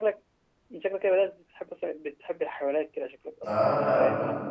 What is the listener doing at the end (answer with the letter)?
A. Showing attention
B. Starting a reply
B